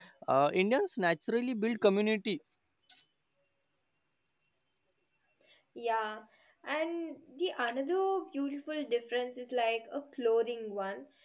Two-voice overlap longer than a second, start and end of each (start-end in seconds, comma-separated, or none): none